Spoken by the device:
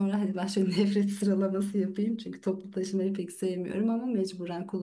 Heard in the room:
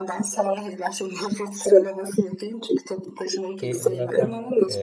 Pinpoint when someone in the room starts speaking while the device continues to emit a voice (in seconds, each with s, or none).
3.6 s